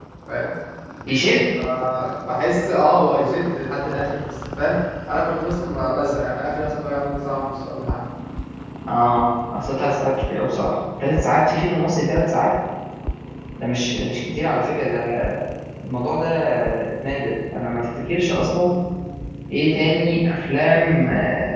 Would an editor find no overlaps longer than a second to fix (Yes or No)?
Yes